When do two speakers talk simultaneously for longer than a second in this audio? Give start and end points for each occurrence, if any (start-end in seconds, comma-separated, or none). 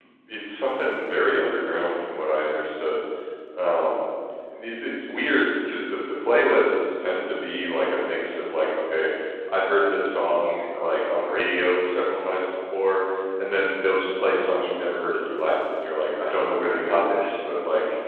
none